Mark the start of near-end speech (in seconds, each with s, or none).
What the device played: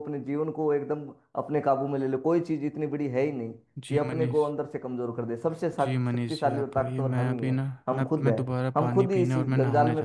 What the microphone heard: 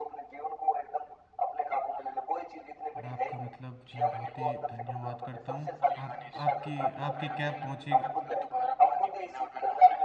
2.9 s